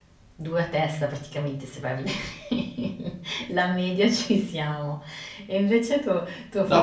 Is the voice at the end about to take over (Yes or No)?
Yes